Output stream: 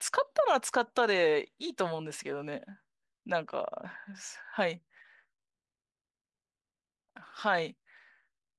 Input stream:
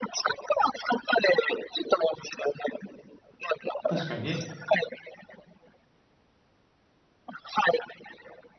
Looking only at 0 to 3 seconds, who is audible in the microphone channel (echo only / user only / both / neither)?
echo only